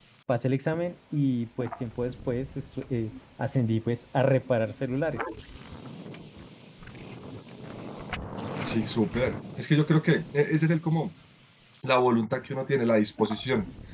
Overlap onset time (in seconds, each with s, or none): none